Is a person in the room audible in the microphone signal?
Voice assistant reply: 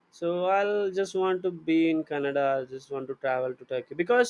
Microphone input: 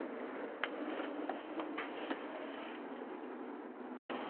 No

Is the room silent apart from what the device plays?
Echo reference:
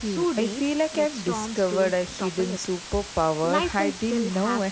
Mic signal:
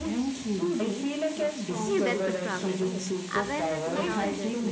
No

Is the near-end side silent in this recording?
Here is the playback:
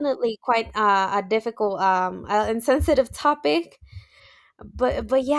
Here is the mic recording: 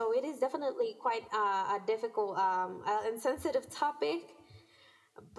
Yes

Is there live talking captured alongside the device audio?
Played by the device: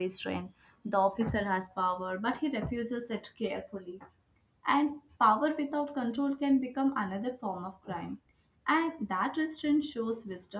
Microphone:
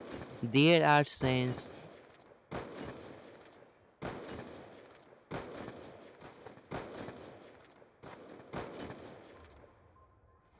Yes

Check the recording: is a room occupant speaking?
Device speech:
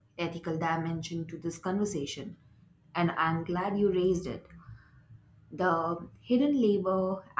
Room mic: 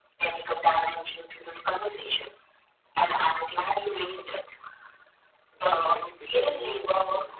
Yes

